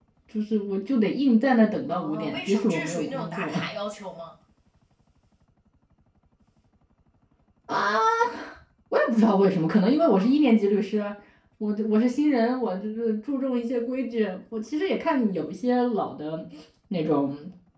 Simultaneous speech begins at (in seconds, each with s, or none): 1.9 s